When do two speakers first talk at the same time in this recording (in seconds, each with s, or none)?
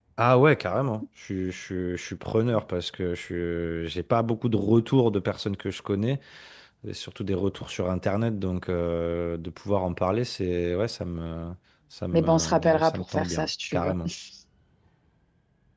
12.1 s